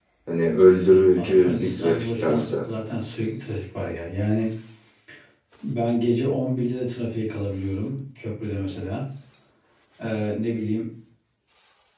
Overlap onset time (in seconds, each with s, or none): 1.2 s